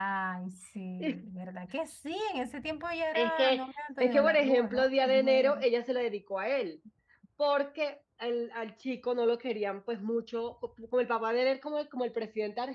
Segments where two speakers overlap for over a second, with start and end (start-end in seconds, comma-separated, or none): 4.0-5.7